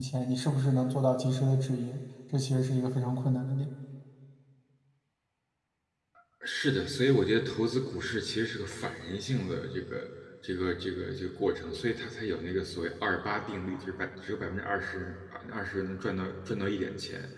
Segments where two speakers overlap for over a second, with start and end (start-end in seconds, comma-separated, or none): none